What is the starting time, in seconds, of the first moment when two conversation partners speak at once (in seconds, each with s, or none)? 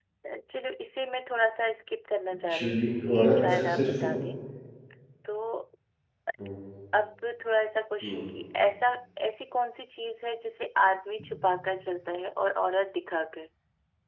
2.4 s